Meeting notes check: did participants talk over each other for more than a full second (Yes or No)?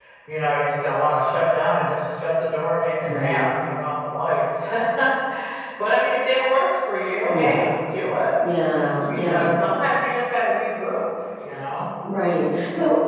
No